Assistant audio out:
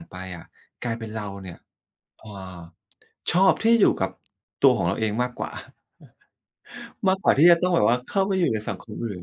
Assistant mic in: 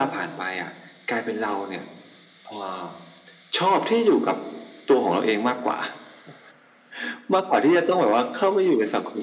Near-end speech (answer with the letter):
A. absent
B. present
A